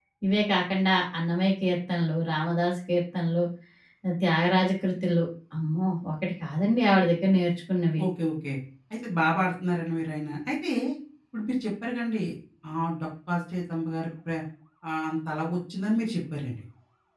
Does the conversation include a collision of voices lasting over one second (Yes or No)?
No